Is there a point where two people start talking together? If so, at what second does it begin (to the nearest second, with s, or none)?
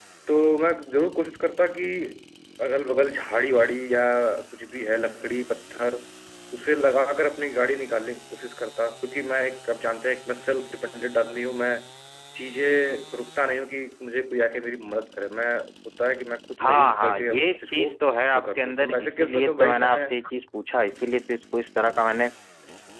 17 s